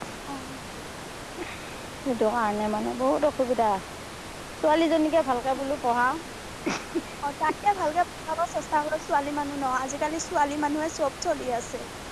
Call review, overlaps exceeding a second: none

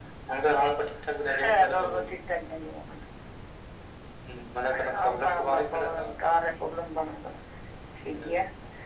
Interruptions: present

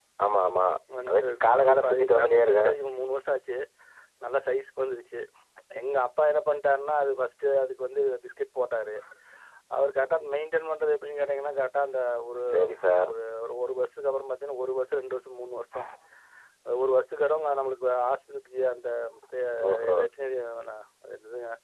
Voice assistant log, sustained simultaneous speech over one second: present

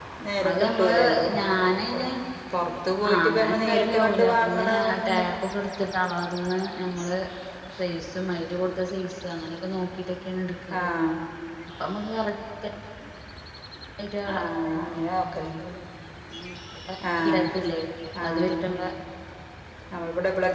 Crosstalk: present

